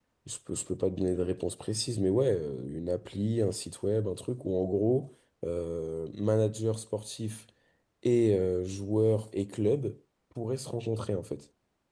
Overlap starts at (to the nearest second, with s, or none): none